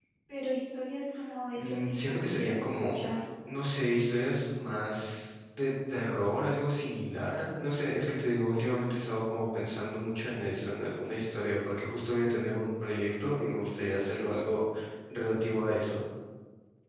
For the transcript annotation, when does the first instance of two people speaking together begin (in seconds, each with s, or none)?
1.6 s